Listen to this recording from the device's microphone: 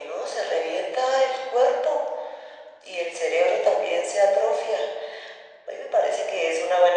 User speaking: No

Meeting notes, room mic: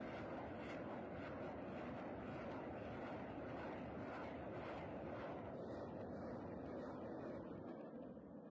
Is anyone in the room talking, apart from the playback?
No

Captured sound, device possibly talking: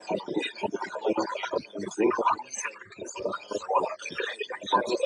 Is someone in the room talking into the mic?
No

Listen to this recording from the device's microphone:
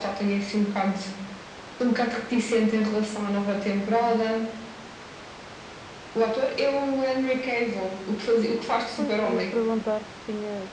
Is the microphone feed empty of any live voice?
No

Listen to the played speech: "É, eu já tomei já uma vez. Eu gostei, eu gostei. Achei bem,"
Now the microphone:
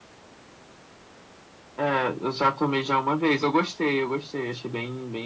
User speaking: No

